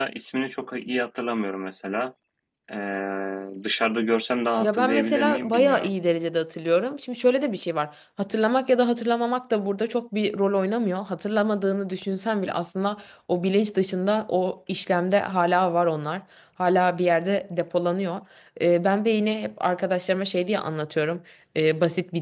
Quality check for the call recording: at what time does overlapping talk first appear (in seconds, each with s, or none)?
4.6 s